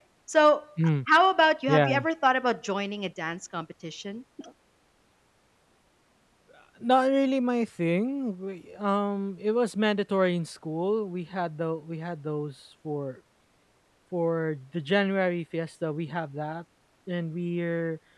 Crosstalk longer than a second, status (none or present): none